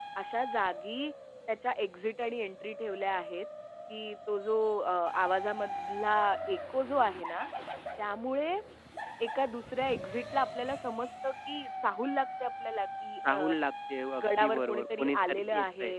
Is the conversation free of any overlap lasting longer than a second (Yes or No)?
No